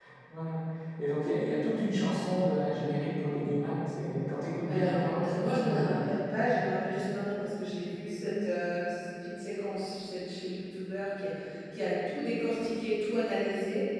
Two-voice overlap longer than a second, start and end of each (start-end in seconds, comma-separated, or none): 4.7-6.0